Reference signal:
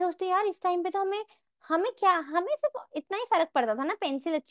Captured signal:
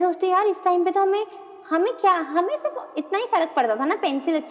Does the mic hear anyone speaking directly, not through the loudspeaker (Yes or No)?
No